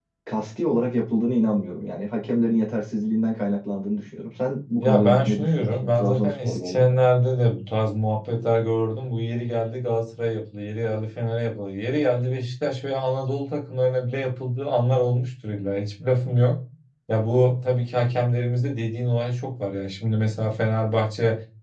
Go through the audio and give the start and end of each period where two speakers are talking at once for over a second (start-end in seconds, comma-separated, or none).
4.8-7.0